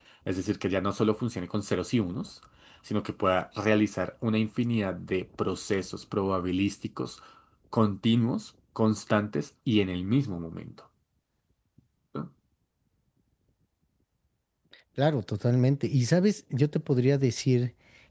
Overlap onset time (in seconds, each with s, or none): none